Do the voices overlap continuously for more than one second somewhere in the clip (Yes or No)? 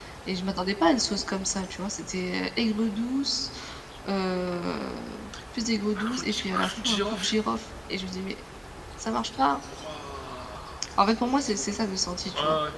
Yes